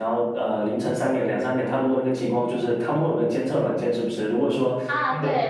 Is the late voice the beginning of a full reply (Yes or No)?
Yes